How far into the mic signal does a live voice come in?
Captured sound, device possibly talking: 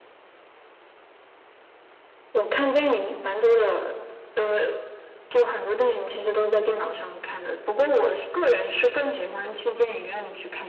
none

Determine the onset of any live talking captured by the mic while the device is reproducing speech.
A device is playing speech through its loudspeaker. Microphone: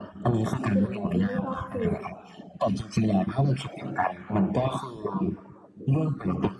0.7 s

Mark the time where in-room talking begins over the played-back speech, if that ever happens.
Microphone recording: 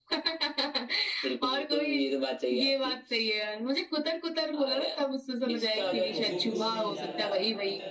5.8 s

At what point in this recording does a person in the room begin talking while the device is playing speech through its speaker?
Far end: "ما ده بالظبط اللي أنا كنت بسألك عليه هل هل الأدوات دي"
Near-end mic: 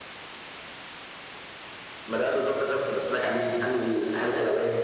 none

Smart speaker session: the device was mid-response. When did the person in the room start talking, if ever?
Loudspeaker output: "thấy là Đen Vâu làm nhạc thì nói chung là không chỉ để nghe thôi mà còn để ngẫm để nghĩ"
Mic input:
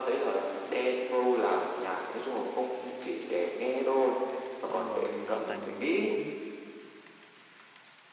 4.6 s

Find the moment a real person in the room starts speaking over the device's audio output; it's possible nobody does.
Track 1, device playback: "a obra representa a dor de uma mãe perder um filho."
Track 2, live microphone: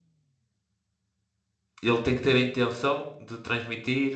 1.8 s

